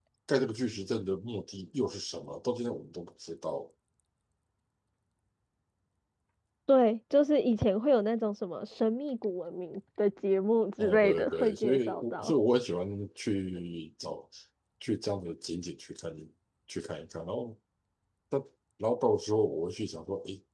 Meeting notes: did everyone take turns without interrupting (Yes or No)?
No